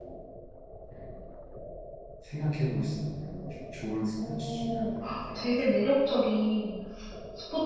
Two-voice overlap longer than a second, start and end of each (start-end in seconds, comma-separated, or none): 4.3-5.8